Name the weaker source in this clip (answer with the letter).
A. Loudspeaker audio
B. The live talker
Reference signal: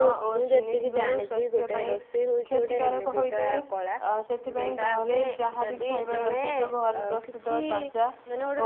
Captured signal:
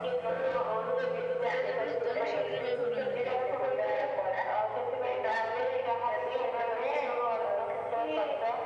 B